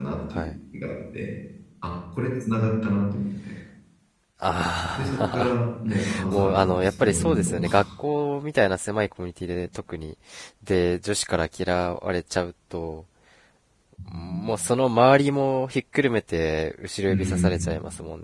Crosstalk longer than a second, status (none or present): present